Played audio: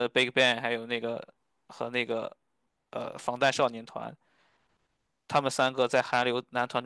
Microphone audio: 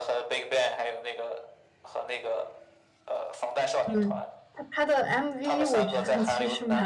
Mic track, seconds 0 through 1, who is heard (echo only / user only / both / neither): echo only